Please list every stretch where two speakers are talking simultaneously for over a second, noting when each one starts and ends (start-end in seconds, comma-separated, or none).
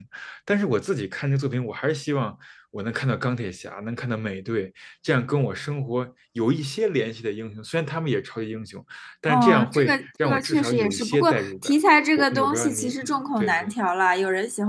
9.3-11.7, 12.2-13.7